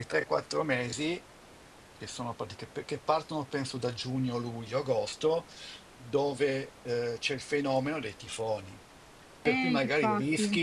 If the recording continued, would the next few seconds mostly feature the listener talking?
No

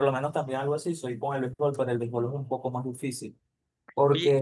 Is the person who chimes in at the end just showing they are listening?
No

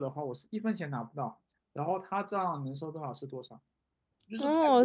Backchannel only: No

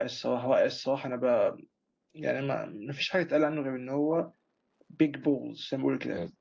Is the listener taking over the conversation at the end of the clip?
Yes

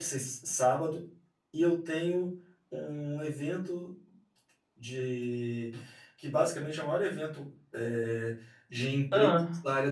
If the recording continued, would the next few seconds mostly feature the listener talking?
No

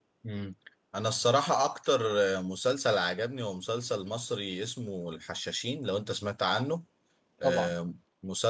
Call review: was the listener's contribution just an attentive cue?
Yes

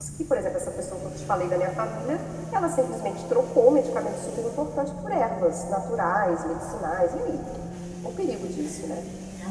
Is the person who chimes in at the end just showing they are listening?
No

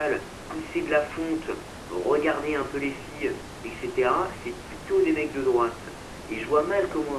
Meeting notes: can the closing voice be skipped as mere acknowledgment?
Yes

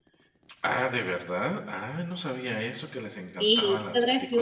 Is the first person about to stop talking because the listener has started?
Yes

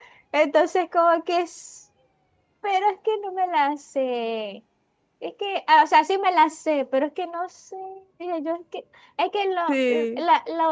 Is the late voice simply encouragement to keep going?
Yes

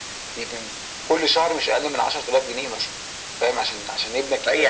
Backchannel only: No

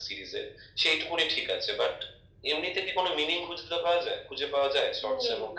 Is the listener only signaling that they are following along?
No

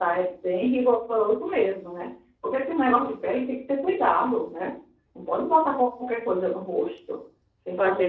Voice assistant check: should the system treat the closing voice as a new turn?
Yes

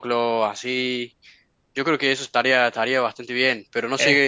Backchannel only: Yes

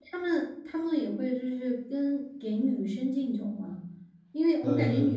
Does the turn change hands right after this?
No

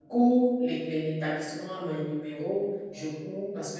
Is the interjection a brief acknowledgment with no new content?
Yes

